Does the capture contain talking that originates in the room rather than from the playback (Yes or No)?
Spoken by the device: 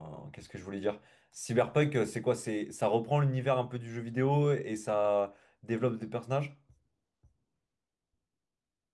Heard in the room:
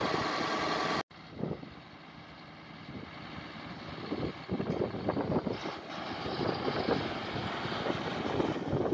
No